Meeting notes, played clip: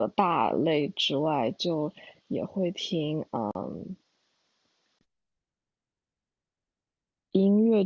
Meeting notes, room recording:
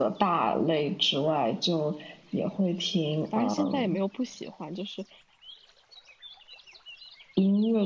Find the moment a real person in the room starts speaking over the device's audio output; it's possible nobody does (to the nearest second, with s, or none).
3 s